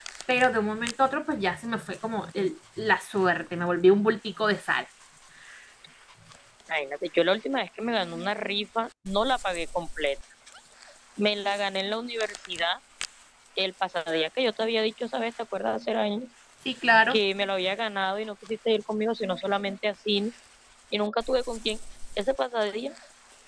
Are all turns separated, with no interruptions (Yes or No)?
Yes